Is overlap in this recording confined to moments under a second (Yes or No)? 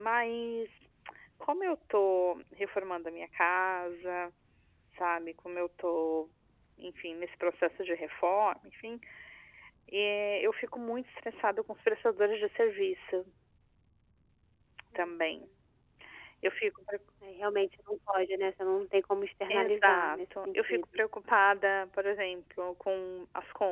No